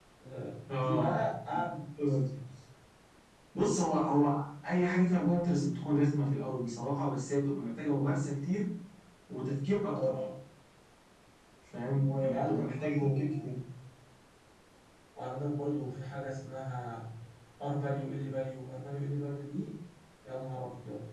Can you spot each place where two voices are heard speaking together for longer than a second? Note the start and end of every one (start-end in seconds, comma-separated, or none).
11.9-13.2